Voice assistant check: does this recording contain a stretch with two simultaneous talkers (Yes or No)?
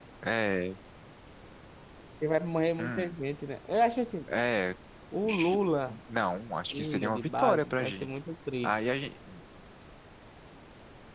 Yes